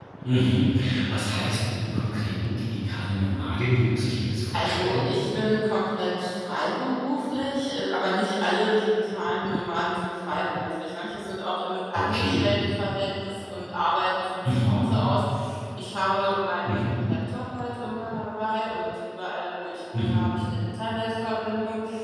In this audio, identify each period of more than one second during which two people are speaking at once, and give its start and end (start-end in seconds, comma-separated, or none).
none